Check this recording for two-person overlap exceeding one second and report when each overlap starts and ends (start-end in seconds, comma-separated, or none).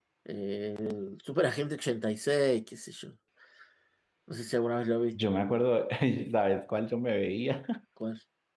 none